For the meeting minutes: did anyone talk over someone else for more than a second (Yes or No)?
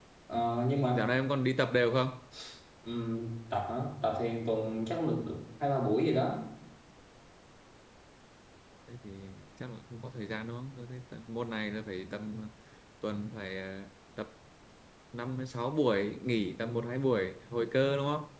No